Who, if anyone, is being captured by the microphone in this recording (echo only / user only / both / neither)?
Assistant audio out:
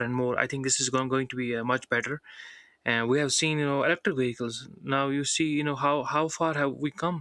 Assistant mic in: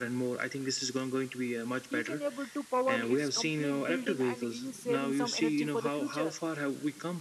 both